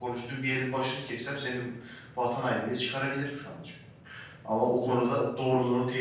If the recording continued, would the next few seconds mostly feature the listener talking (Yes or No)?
No